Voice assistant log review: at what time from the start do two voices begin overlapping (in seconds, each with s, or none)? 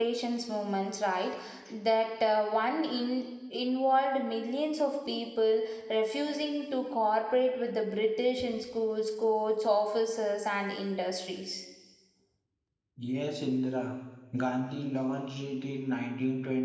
none